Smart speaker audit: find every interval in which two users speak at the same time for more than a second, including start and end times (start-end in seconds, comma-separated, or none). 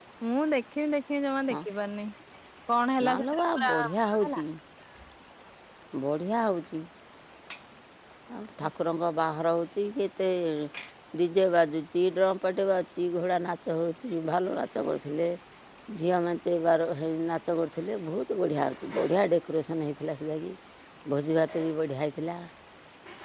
3.1-4.4